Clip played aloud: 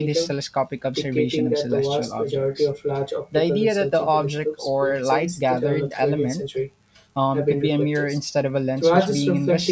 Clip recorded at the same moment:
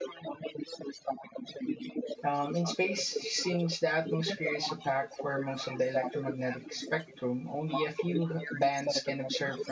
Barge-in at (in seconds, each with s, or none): 2.2 s